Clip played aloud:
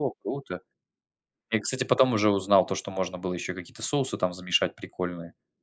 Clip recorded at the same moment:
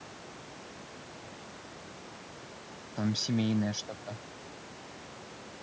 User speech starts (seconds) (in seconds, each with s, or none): 2.9 s